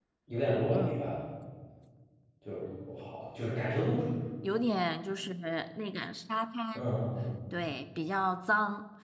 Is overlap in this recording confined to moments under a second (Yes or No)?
Yes